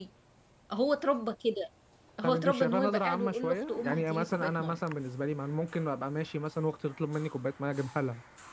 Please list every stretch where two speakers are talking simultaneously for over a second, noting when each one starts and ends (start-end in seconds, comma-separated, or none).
2.2-4.8